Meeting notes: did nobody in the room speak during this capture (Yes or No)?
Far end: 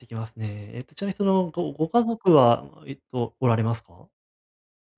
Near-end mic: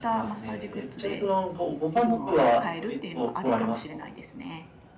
No